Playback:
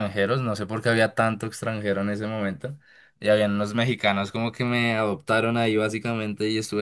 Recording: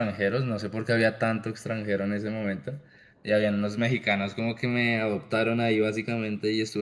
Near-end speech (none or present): none